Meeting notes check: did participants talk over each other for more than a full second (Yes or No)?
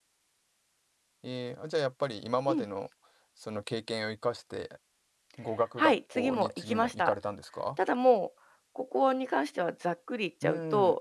Yes